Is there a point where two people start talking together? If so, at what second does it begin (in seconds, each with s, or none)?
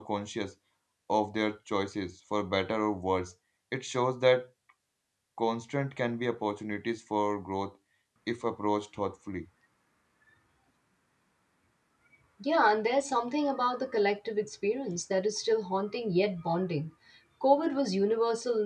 none